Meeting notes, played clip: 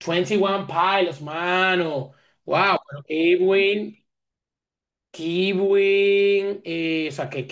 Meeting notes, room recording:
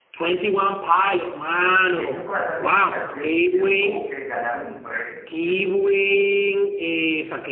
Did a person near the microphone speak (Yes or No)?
Yes